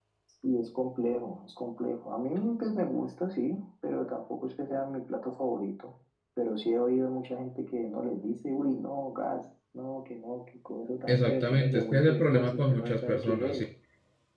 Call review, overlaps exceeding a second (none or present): present